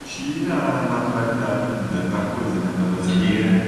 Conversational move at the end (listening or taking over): taking over